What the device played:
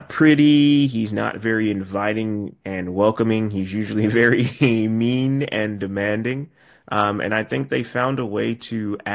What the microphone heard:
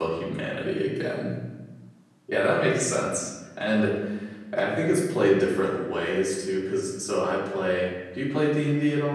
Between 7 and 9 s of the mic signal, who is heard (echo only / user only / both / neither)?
user only